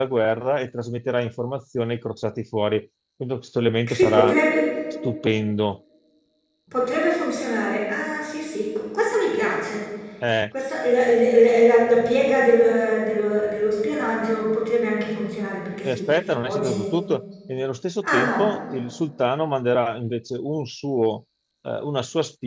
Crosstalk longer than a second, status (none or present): none